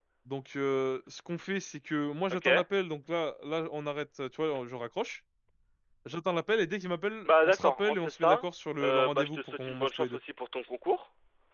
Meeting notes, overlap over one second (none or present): present